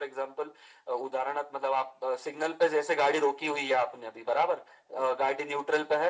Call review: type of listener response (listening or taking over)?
listening